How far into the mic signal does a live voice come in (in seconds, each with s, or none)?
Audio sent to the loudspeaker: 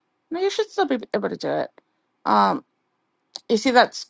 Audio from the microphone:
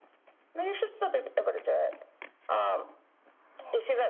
none